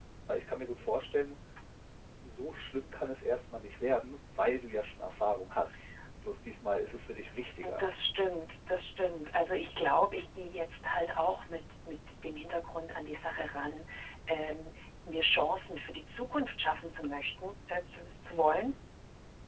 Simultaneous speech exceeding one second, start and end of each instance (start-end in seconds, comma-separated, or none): none